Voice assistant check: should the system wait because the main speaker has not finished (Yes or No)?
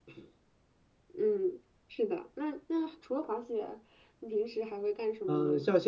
No